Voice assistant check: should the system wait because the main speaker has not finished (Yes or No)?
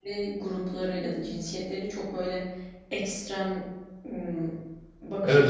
No